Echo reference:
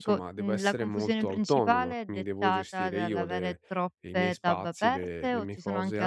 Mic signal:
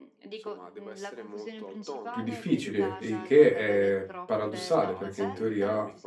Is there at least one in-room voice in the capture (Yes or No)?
Yes